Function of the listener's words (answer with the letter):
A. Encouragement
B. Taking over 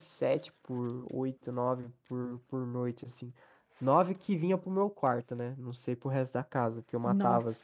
A